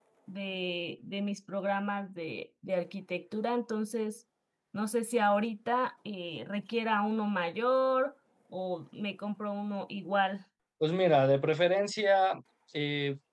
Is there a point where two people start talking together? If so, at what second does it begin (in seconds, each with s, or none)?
none